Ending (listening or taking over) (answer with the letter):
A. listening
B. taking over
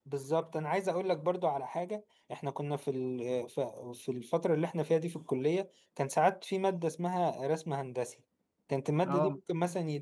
A